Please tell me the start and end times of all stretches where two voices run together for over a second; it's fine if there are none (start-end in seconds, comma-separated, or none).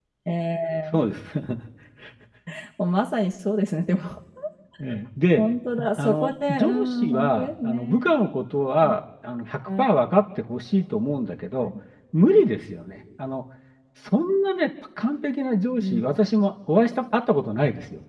6.0-8.1